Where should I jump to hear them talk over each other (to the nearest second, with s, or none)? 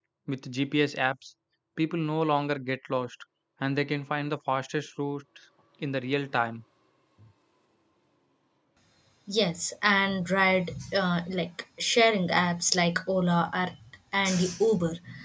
none